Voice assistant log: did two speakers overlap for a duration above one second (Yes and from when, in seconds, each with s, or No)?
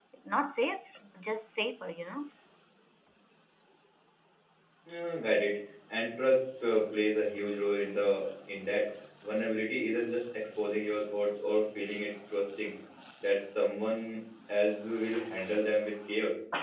No